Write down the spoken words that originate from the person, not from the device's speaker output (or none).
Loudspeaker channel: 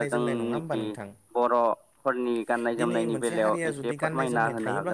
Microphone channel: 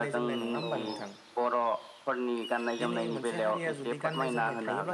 औ औ